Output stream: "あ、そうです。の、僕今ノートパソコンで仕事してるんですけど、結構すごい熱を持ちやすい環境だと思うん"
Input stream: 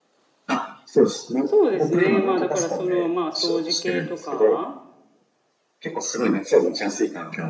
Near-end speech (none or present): present